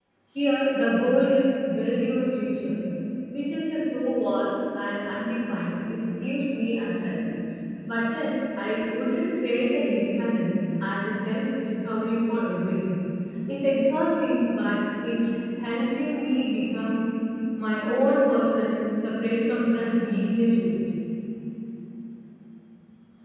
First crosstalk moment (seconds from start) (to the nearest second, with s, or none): none